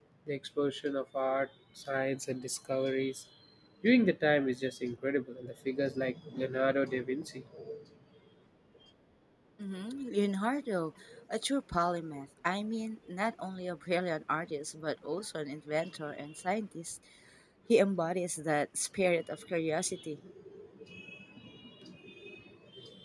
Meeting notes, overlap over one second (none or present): none